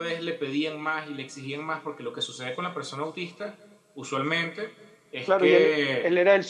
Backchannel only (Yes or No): No